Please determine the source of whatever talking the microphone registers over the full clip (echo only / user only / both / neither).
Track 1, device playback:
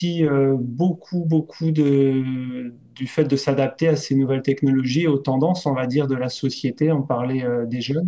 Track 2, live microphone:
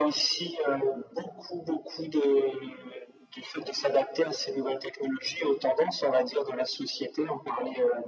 echo only